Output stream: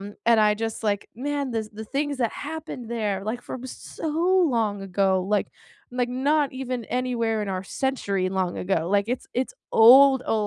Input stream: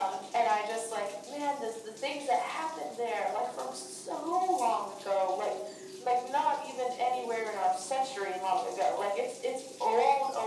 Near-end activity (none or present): none